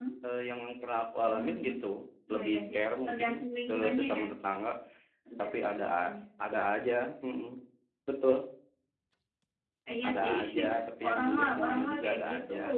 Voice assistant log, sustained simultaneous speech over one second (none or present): present